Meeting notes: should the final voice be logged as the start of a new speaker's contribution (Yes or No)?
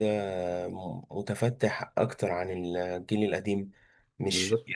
No